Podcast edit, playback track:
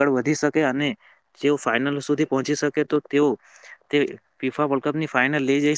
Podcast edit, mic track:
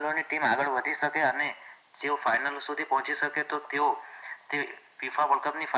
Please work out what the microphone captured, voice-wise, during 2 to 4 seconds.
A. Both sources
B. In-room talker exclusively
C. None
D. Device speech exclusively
D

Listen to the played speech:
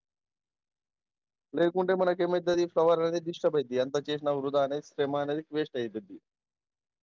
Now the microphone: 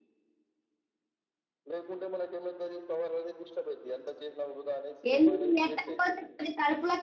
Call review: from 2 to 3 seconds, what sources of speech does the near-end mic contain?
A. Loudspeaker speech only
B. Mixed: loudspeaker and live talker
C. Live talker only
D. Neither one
A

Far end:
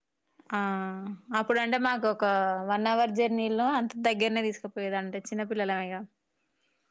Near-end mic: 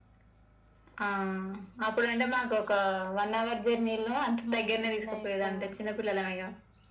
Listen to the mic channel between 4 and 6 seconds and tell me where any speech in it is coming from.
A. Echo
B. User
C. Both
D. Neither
C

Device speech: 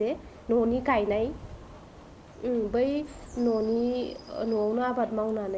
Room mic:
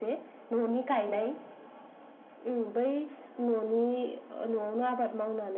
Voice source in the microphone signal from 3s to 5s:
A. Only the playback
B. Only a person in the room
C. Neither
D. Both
A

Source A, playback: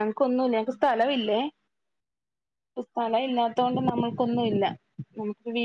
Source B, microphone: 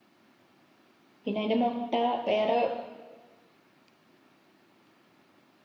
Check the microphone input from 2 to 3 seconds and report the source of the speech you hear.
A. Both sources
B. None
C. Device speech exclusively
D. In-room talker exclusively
D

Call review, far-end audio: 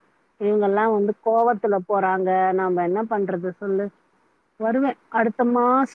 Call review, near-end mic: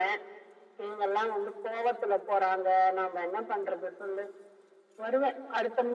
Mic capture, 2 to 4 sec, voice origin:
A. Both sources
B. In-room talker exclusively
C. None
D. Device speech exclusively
D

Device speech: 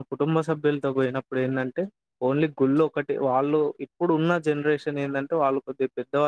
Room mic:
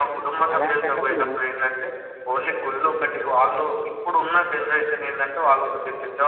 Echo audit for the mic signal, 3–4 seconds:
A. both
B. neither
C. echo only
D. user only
C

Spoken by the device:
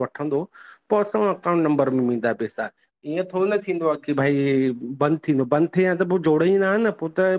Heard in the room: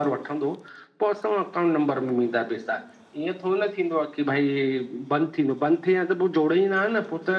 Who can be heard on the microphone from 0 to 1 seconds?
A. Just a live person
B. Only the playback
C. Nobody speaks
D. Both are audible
B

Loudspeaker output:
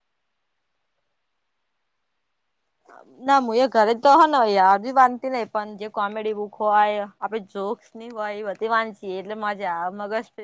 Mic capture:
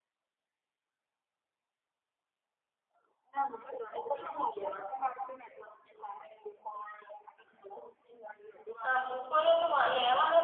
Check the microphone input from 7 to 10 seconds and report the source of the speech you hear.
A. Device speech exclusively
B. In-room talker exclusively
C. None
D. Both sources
D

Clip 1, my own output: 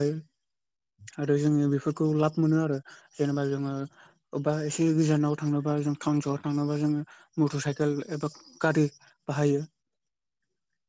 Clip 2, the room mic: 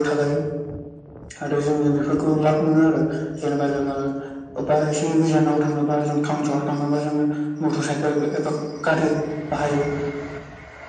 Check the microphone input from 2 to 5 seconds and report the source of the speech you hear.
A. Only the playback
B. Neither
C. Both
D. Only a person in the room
A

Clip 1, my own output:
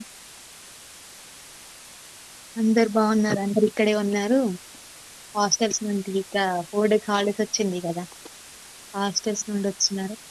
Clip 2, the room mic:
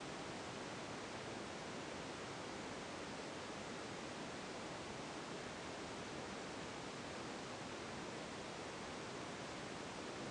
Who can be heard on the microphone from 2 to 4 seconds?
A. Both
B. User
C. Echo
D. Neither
D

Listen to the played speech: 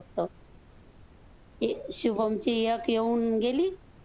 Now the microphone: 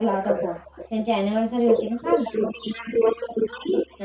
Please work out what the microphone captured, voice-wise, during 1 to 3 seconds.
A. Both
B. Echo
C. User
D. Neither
A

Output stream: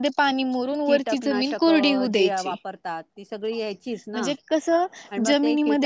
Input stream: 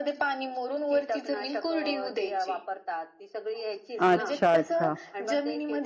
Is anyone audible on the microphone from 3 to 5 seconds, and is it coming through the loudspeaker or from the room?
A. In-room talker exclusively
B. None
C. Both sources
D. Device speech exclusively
C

